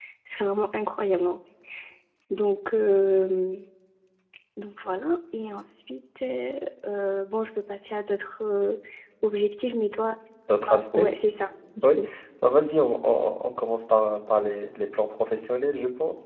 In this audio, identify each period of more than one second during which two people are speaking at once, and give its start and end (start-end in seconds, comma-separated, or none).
none